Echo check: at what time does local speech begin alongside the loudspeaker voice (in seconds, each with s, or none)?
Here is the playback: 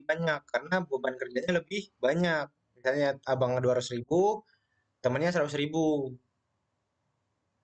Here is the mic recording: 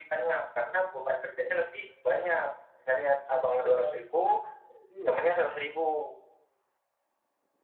3.6 s